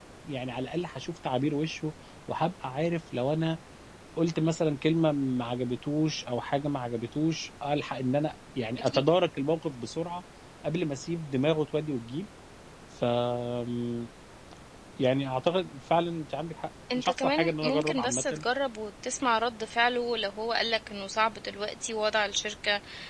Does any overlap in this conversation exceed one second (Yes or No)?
Yes